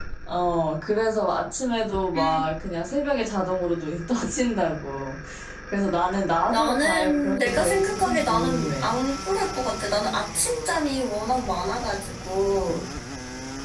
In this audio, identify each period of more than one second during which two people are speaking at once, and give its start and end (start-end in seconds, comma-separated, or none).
6.5-8.9